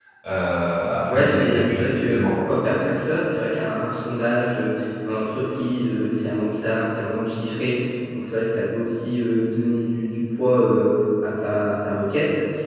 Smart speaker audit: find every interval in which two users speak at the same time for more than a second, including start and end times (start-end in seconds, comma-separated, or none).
1.1-2.4